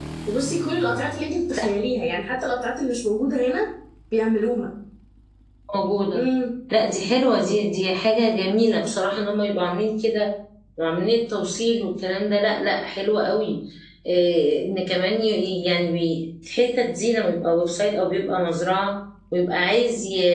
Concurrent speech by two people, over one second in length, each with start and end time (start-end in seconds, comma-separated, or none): none